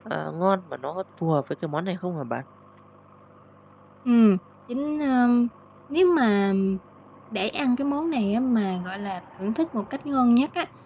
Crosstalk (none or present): none